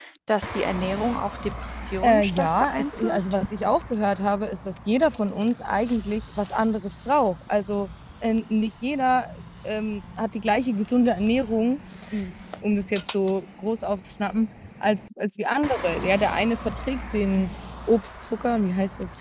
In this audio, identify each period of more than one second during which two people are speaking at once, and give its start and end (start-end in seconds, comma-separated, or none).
2.0-3.3